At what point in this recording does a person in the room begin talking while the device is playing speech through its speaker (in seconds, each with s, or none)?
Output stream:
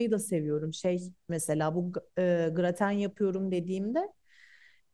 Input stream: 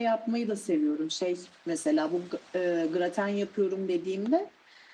none